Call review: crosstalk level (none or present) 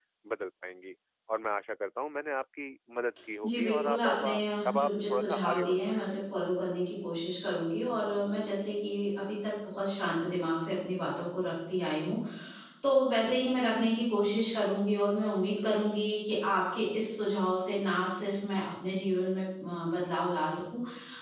present